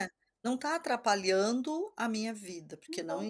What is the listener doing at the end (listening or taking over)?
listening